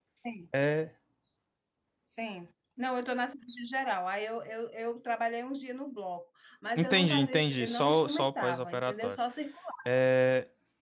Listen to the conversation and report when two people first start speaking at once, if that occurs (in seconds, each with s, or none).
6.8 s